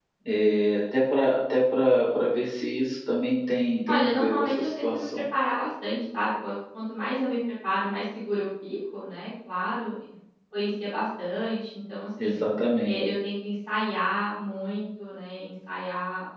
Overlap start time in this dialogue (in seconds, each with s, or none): 3.9 s